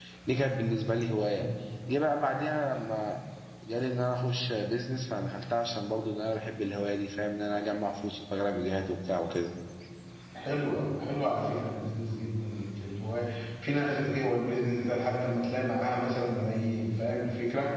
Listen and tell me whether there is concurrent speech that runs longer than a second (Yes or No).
No